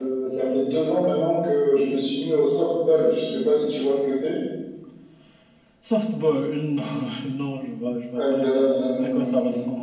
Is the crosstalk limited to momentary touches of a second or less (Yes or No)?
No